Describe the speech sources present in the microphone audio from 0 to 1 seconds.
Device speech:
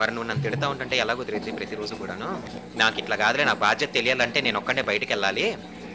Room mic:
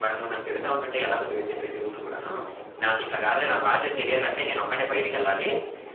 echo only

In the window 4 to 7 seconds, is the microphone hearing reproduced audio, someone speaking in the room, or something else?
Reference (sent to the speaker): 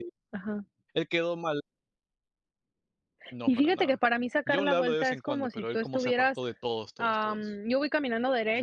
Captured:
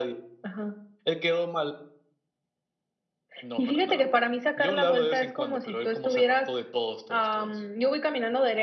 echo only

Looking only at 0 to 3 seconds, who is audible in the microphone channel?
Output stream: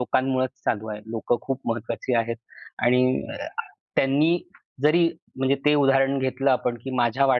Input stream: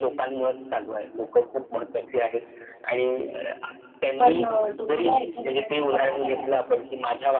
echo only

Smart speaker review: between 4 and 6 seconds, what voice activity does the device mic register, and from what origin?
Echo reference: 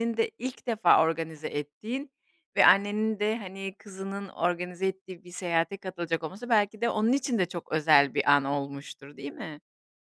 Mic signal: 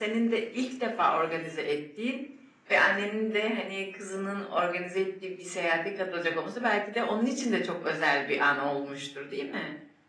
echo only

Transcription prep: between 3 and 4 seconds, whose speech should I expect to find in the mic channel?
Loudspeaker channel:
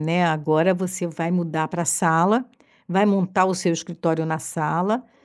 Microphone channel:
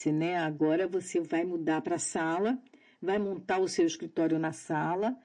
echo only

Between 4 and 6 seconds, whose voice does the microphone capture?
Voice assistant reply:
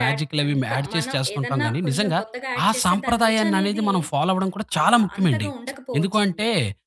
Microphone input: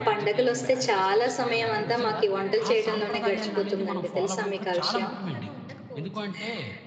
both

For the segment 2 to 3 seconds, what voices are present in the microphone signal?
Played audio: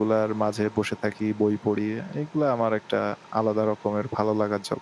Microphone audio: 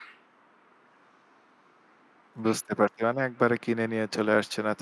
user only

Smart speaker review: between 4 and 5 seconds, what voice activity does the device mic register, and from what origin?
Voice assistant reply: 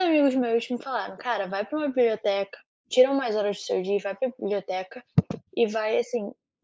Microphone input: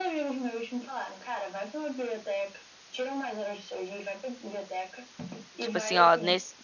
echo only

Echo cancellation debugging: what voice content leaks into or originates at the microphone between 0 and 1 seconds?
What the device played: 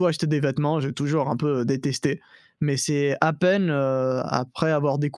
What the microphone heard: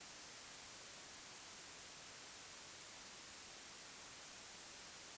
neither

